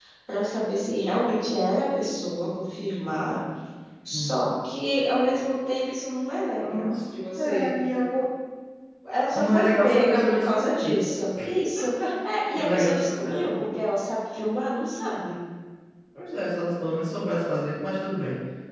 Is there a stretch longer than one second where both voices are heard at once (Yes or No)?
Yes